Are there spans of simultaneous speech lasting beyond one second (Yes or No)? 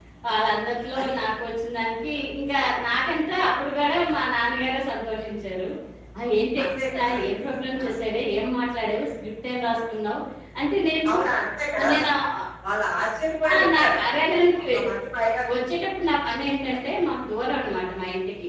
Yes